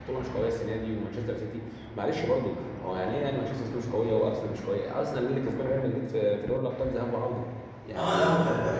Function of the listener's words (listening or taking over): taking over